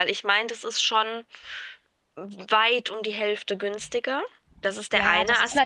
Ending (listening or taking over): taking over